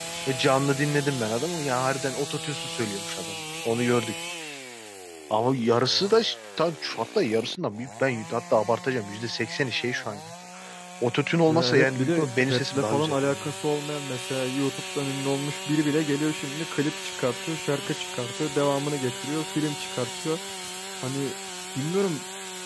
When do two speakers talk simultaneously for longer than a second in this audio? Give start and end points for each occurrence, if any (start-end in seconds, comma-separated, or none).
11.5-13.5